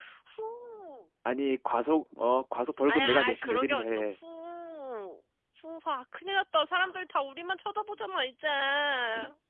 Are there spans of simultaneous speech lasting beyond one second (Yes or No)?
Yes